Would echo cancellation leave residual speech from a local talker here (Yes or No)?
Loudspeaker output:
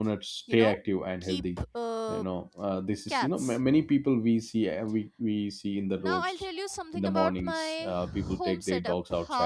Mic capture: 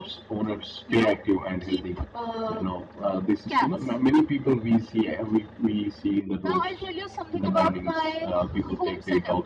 No